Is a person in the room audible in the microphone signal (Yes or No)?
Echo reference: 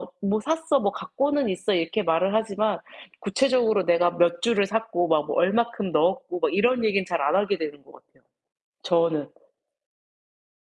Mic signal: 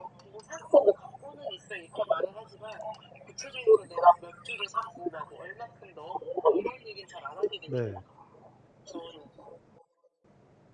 Yes